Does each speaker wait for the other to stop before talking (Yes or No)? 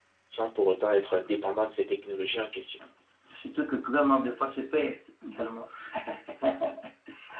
Yes